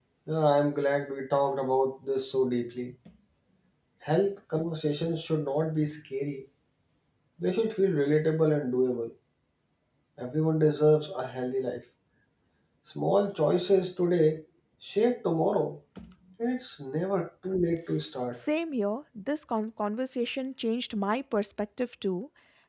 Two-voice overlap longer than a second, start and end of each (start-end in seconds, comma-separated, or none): none